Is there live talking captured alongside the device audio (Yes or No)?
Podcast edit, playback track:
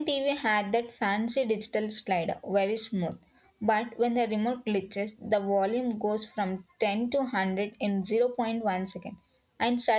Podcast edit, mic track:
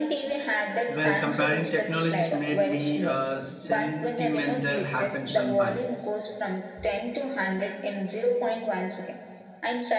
Yes